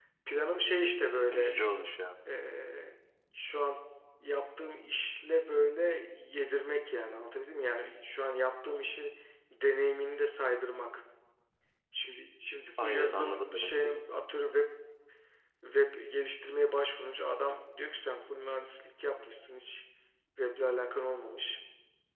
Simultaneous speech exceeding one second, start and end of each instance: 12.8-14.0

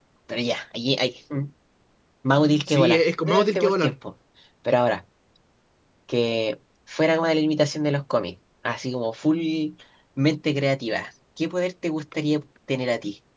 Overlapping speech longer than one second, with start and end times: 2.7-3.9

